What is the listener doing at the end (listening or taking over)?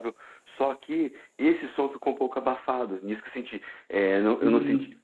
listening